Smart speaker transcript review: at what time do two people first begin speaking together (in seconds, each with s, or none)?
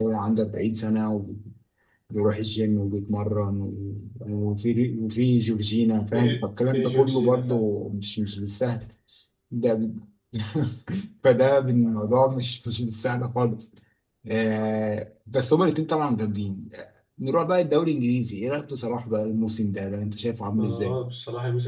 6.1 s